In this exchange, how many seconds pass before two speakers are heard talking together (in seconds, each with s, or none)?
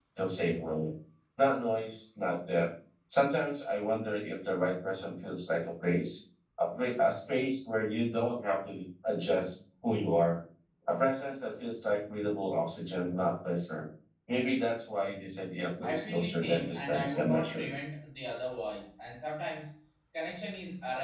15.8 s